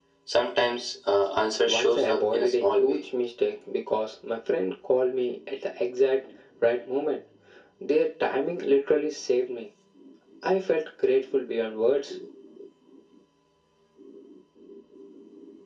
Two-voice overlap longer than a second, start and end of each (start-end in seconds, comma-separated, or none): 1.7-3.0